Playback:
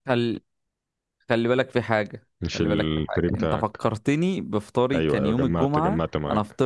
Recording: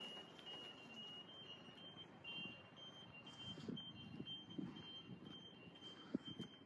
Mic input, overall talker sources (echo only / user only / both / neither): neither